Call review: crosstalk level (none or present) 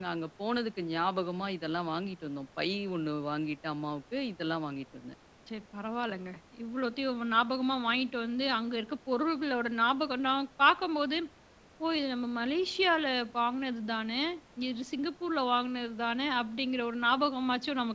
none